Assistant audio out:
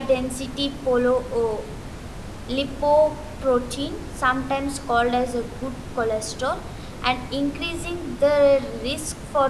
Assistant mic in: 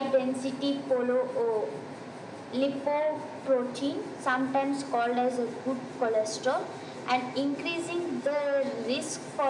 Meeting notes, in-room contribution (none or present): none